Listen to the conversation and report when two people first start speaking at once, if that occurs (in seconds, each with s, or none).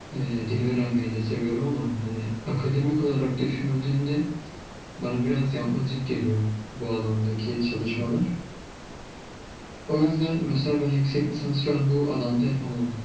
none